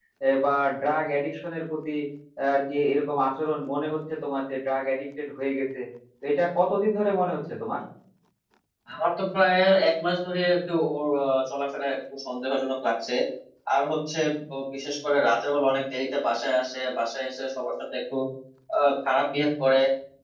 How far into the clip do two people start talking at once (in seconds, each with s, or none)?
none